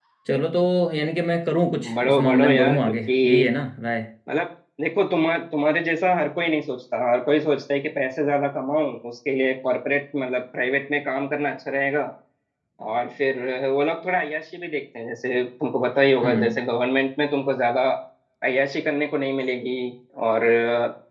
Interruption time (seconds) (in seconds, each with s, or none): 2.0 s